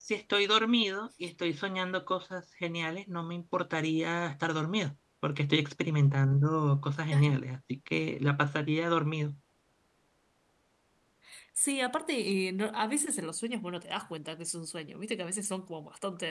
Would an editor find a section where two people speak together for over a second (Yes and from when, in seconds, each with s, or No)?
No